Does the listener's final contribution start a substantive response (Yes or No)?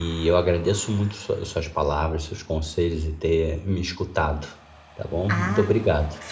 Yes